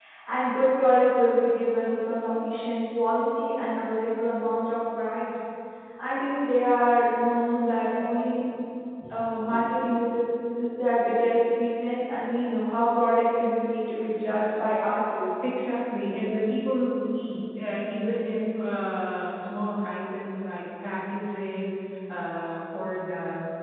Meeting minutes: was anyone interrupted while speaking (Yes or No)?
No